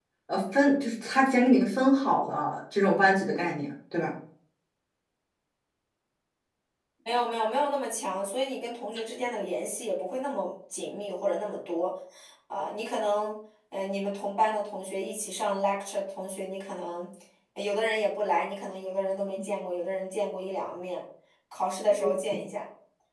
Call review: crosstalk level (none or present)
none